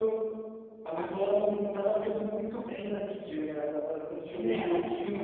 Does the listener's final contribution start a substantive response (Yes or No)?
No